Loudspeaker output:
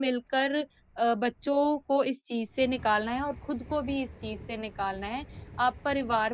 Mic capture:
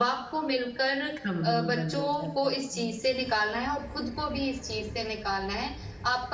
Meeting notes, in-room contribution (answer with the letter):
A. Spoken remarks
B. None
A